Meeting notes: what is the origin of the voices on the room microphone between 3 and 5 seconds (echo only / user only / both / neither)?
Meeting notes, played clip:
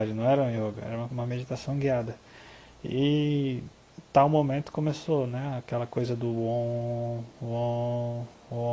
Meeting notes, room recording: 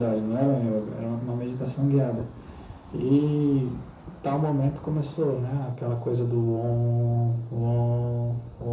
echo only